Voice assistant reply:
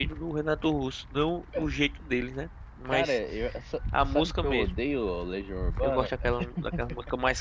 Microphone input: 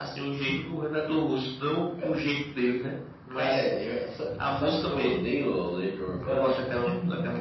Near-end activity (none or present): none